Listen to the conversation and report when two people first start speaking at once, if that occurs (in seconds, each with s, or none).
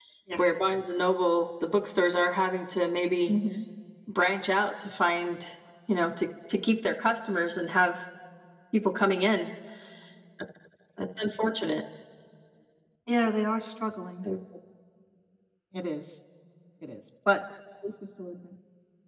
none